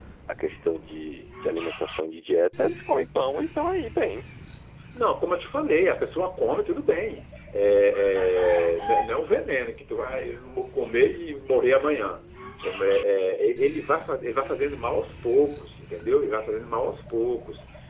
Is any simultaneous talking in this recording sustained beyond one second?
No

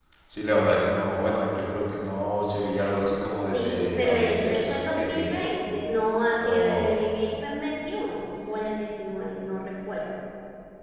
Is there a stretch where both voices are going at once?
Yes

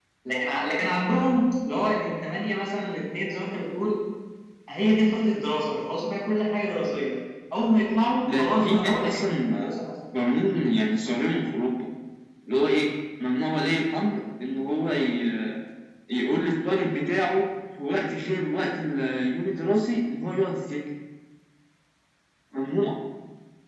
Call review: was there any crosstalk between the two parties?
Yes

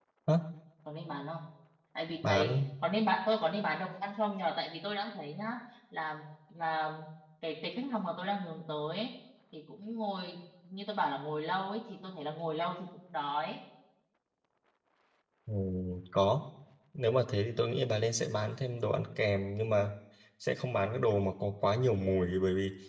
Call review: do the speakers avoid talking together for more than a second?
Yes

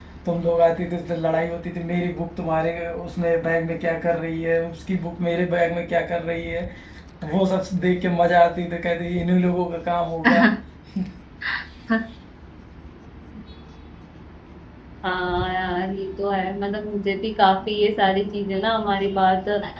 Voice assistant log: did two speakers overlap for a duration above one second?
No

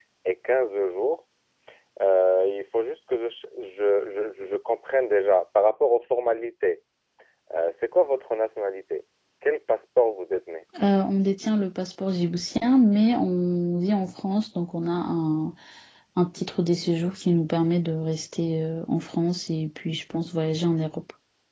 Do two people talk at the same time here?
No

